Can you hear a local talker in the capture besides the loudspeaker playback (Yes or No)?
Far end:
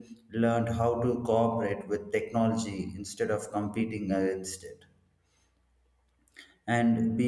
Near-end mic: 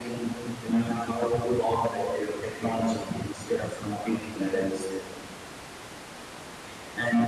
No